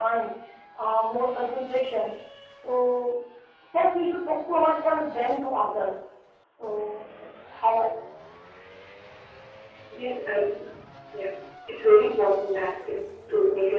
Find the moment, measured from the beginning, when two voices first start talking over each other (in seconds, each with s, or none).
none